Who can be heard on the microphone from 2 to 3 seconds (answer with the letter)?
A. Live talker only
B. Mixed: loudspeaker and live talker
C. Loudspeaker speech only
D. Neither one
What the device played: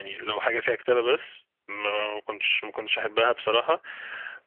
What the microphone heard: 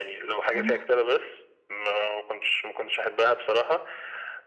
C